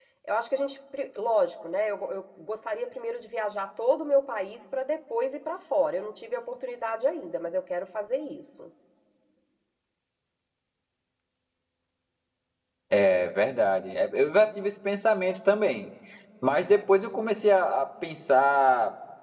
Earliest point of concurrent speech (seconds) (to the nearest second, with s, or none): none